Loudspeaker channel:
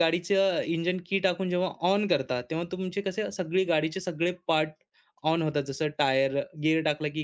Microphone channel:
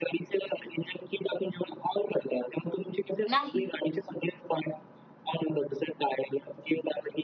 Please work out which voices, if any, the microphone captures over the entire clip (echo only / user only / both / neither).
both